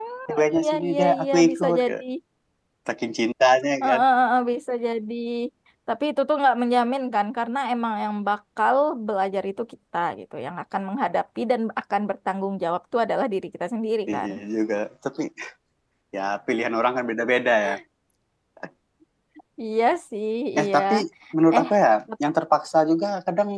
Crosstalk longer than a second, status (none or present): present